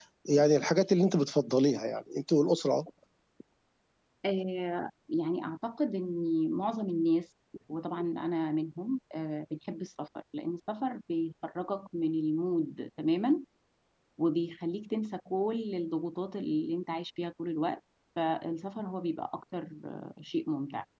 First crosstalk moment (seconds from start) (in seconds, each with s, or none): none